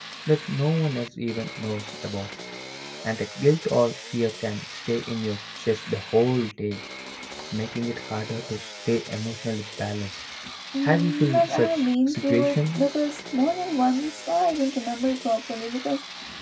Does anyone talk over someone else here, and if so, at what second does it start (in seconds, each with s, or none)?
10.8 s